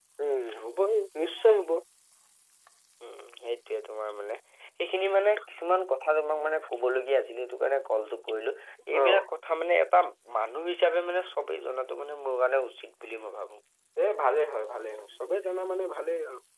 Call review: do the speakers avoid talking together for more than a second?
Yes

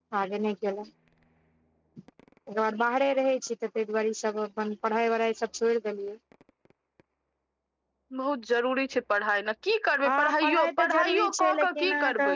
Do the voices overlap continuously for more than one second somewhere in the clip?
Yes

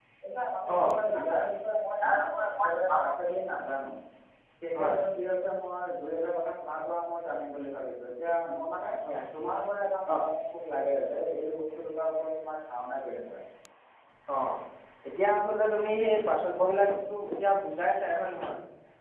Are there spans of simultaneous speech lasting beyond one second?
No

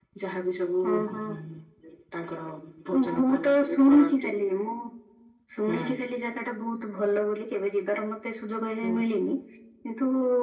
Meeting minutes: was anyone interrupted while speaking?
Yes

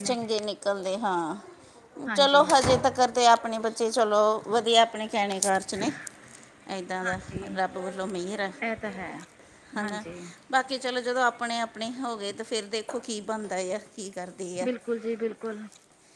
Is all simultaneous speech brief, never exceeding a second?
Yes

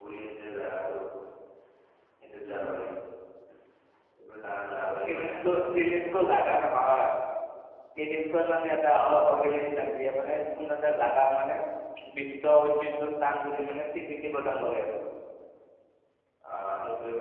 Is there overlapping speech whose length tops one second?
Yes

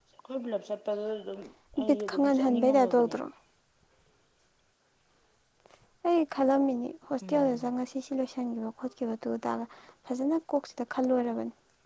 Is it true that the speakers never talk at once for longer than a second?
No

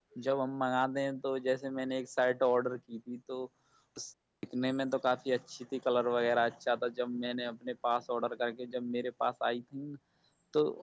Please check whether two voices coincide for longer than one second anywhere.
No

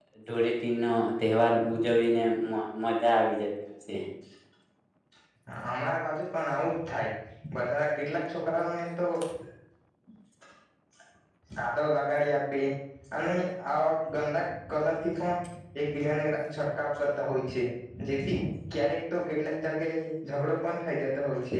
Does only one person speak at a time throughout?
Yes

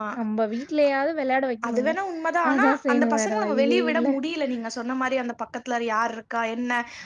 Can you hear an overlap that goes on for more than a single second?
Yes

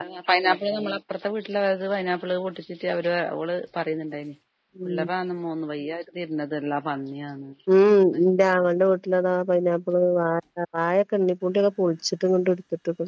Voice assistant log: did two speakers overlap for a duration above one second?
No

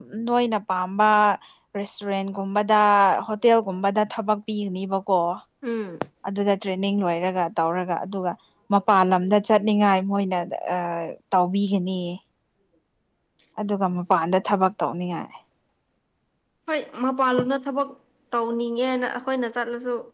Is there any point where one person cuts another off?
No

